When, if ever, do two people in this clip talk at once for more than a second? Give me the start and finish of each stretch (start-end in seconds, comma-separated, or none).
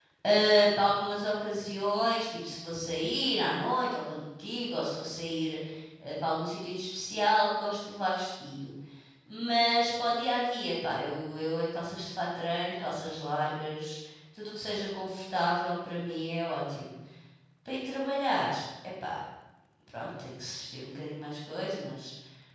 none